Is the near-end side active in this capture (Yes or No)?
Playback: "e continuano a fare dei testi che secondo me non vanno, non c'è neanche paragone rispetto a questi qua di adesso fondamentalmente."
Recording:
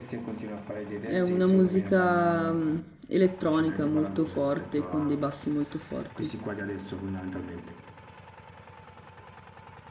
Yes